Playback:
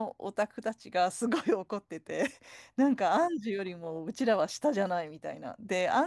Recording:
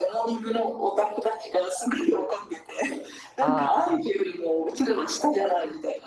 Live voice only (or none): ああ、